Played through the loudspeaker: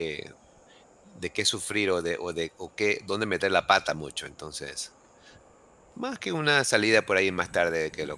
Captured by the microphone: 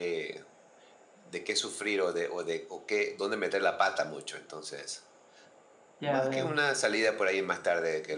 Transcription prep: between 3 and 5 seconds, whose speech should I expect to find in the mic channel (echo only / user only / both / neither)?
echo only